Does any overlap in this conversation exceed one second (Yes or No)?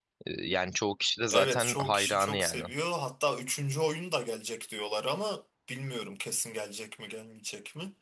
Yes